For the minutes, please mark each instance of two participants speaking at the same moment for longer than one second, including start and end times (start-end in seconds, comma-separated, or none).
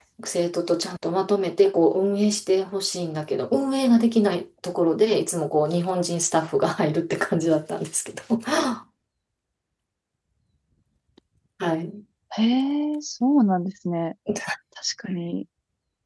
none